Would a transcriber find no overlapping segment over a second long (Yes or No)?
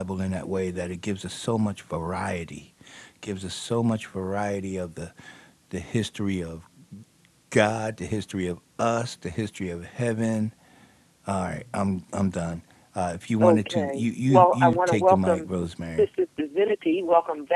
No